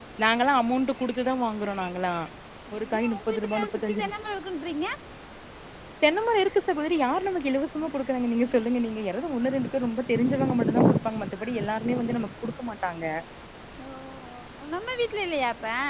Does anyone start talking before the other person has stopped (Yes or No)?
Yes